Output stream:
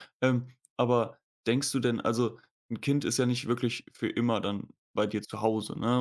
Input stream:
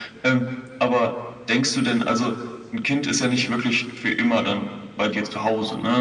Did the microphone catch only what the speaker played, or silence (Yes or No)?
Yes